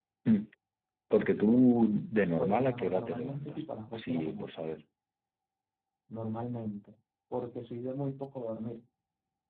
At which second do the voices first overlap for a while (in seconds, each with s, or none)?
2.3 s